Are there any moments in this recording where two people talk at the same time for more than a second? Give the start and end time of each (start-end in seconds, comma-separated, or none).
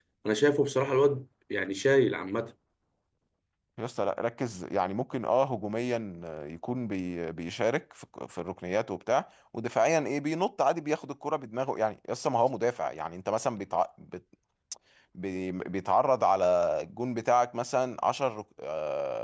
none